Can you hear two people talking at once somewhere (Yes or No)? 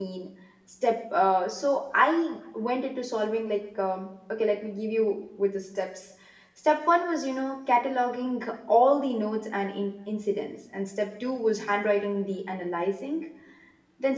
No